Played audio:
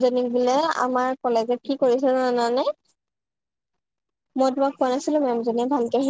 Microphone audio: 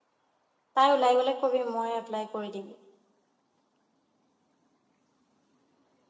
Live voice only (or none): তাই ওলাই গ'লে কবি মই এপ্লাই কৰি দিম।